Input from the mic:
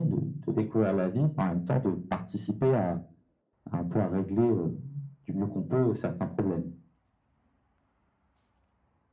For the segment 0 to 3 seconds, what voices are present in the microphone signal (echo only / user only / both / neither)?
echo only